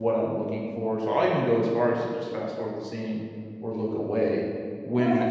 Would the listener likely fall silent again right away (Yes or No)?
No